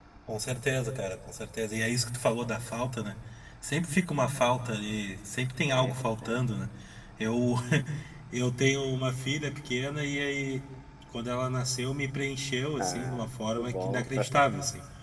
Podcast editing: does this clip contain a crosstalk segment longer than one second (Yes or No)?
Yes